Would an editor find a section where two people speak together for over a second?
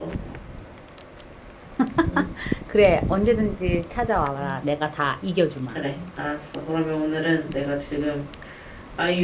No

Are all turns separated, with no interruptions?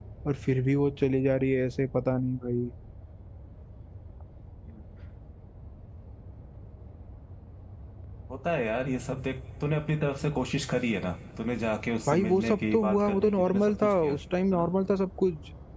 No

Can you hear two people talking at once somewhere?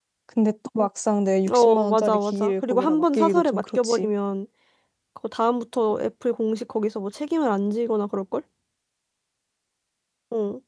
Yes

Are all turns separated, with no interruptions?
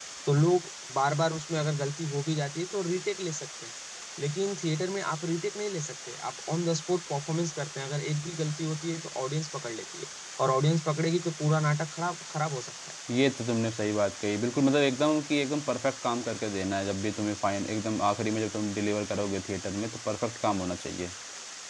Yes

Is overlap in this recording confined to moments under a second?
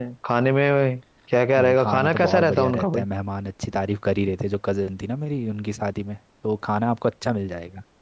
No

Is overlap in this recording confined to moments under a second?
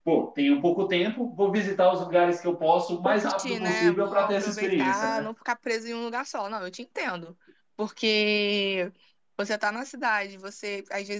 No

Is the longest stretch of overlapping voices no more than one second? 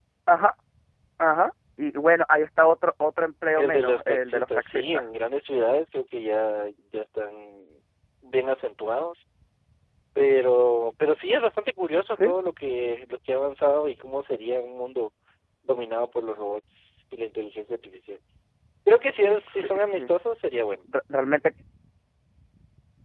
No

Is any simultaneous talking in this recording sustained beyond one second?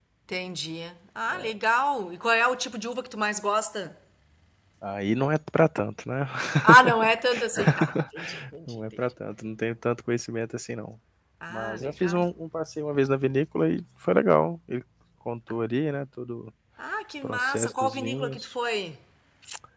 Yes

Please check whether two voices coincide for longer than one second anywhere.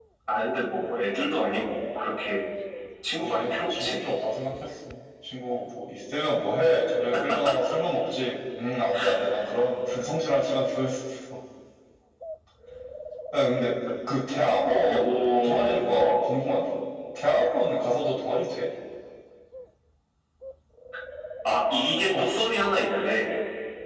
Yes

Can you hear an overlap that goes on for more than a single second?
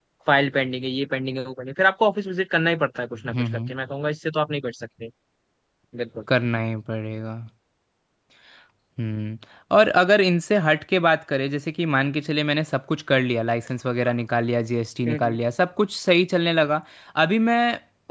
No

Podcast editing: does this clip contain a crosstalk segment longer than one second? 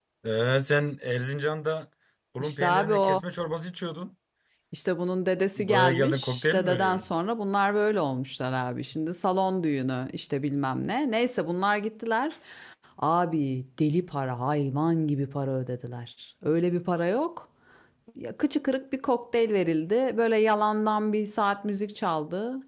Yes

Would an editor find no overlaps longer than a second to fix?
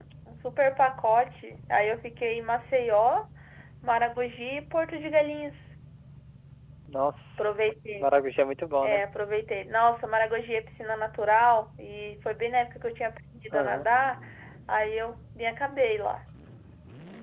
Yes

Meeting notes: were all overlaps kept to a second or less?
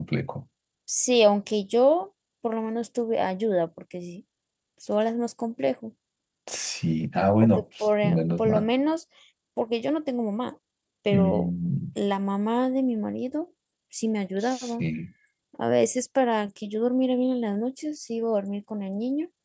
No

